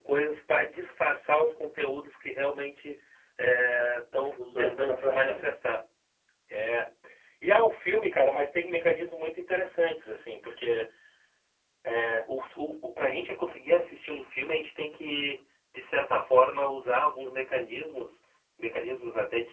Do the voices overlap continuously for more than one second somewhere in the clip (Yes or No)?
Yes